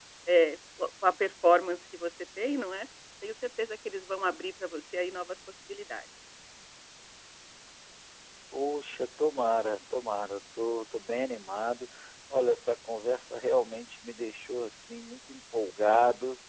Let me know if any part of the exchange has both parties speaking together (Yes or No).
No